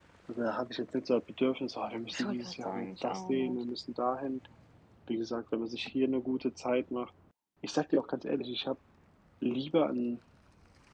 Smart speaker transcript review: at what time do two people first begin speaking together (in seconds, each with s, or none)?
2.1 s